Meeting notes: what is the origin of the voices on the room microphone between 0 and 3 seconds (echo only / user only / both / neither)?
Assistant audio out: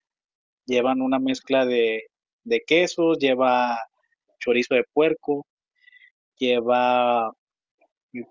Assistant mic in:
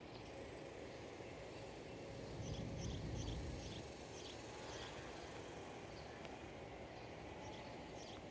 neither